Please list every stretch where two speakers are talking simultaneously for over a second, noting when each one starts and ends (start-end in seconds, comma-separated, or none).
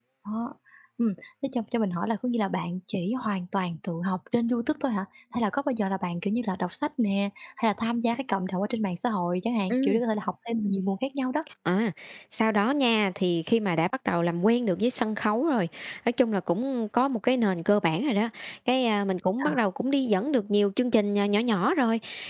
none